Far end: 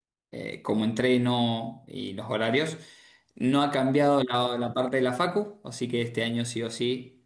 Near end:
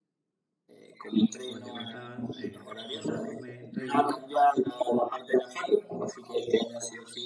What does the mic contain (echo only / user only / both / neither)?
both